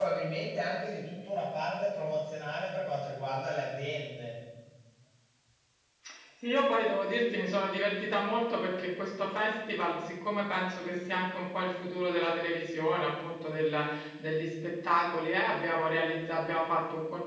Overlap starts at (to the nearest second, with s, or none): none